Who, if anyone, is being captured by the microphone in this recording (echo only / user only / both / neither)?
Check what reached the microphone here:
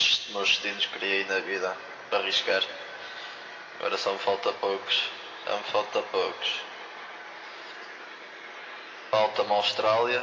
echo only